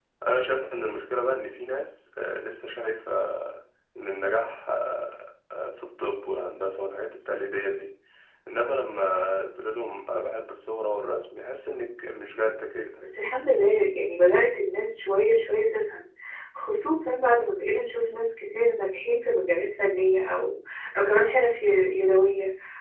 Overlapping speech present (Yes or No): No